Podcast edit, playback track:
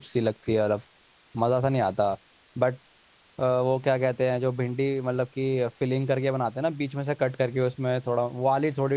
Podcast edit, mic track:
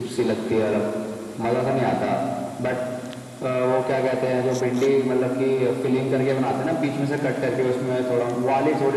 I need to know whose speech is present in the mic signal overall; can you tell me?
echo only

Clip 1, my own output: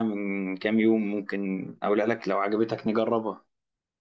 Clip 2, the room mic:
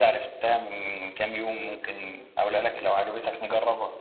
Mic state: echo only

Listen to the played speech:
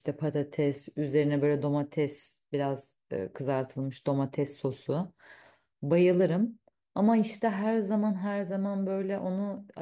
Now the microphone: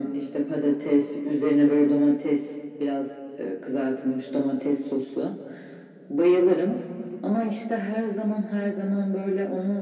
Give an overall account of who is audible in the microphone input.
echo only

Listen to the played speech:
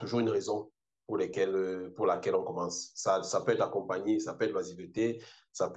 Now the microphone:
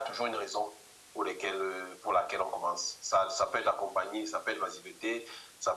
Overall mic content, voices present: echo only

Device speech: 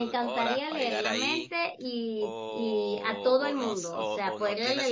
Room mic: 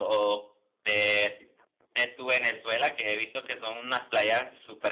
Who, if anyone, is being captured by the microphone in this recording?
user only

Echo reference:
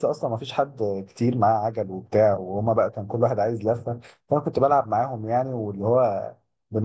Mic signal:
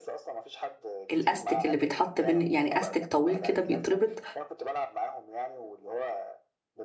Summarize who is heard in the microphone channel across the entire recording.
both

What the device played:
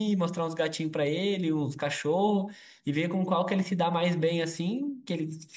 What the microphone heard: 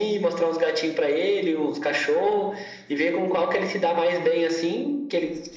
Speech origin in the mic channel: echo only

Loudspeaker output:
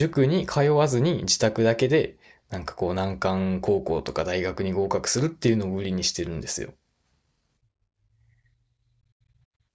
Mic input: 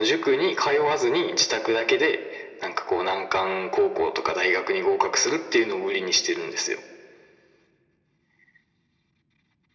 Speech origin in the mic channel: echo only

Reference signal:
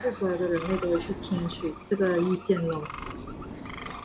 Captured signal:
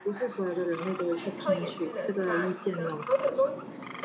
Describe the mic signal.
both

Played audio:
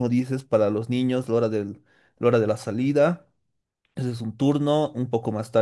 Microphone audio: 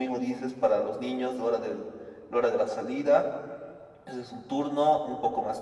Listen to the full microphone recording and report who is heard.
echo only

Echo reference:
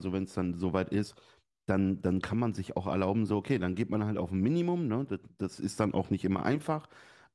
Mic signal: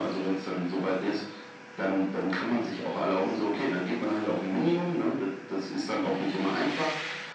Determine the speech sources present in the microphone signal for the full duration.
echo only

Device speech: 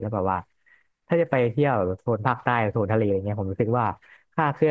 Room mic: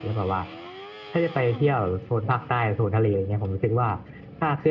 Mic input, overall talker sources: echo only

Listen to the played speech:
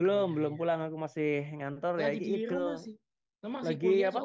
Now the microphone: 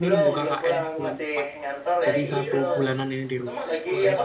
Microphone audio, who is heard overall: both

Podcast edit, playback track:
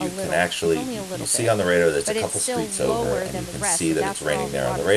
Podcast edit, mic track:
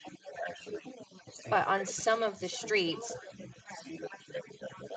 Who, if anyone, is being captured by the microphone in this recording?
both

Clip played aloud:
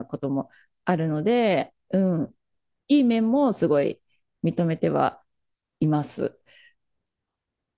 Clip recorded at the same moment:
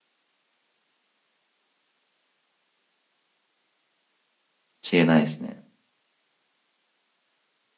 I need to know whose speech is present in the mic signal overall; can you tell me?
user only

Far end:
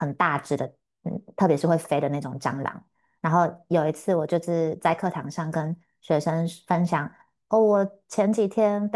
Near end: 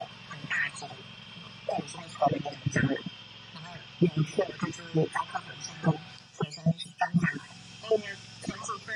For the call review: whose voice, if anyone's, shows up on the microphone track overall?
echo only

